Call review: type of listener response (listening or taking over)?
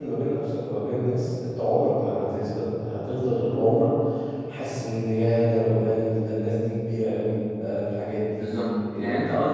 taking over